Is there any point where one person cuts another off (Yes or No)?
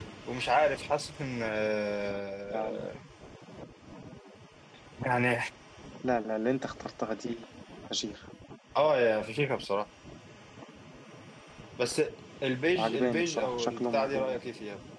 Yes